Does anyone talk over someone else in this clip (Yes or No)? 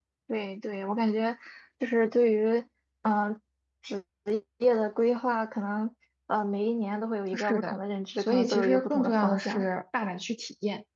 Yes